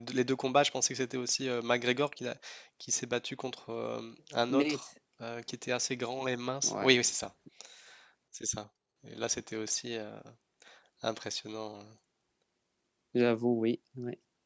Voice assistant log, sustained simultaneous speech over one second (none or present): none